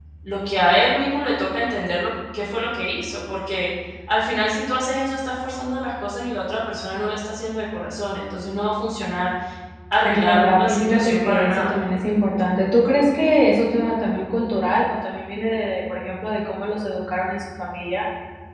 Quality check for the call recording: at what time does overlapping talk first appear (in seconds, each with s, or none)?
10.0 s